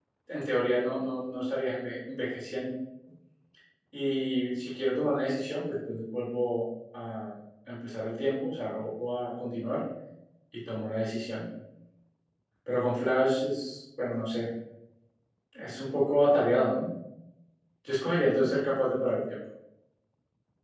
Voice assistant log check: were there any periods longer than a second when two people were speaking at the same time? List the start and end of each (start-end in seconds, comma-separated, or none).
none